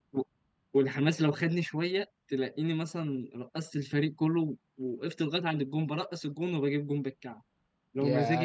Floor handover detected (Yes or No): Yes